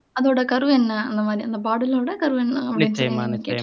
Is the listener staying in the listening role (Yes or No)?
No